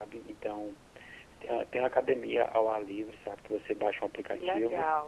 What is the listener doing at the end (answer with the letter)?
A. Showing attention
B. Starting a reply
A